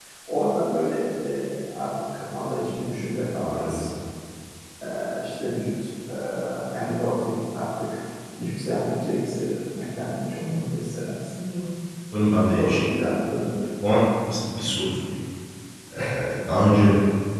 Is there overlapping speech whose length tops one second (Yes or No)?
No